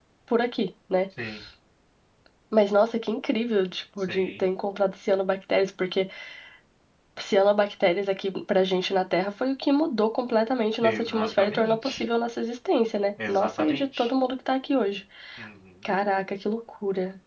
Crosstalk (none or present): present